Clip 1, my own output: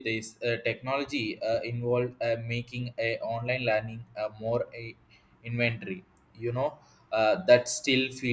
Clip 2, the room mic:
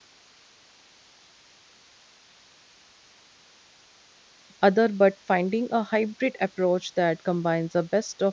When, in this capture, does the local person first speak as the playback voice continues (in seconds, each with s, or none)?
4.6 s